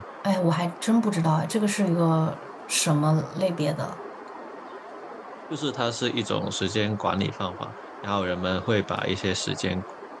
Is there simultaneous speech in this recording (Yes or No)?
No